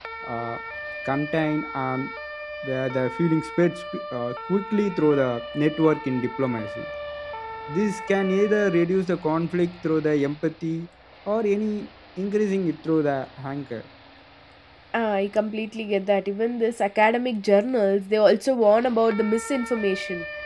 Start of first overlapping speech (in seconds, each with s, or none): none